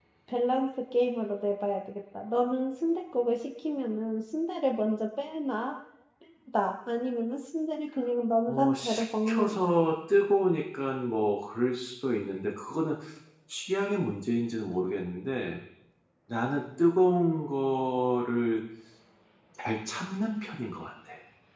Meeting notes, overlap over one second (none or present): present